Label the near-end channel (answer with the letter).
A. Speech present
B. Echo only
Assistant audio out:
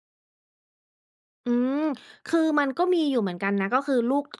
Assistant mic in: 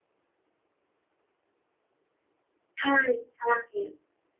A